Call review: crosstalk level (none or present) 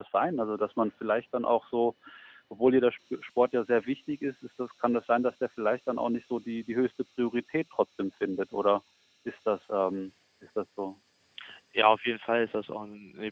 none